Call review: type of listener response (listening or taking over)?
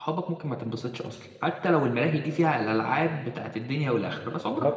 listening